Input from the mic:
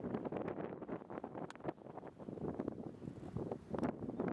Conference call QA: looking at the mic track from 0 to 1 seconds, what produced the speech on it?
neither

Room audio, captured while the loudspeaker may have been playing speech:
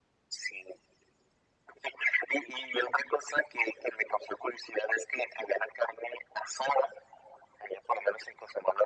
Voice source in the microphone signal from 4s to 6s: echo only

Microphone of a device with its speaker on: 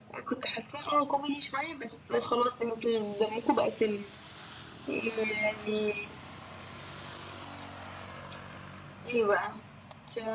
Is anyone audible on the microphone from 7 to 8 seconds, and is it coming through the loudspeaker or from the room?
neither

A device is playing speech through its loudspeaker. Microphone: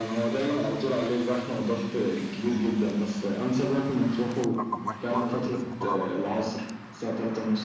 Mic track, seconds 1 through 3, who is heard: echo only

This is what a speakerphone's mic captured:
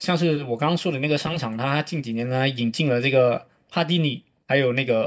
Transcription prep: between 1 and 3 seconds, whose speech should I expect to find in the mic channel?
user only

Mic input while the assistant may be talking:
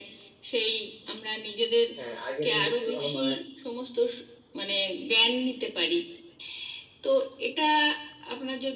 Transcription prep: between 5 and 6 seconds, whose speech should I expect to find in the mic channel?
echo only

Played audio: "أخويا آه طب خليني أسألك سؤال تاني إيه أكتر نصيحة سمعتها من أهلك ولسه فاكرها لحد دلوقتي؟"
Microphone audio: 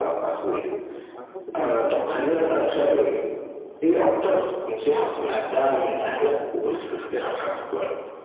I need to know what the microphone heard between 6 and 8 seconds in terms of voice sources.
echo only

